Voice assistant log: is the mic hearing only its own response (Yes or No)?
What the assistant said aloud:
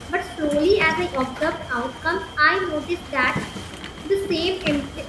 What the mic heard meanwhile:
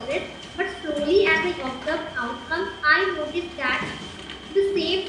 Yes